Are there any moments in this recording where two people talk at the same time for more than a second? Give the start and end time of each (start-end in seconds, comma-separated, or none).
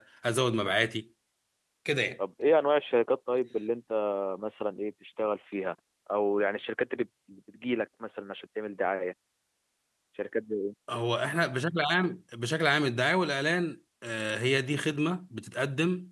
none